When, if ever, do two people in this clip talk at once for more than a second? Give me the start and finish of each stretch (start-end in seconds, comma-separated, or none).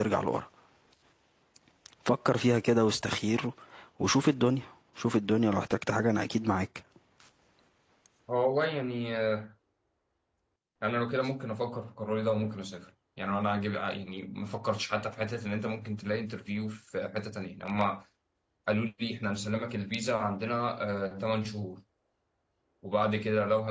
none